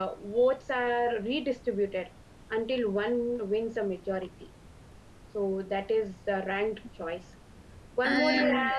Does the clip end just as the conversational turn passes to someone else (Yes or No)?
No